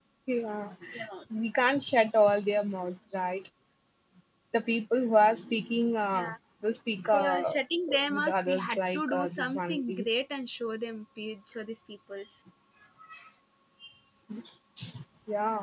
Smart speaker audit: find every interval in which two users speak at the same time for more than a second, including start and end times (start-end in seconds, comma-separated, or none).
8.1-9.8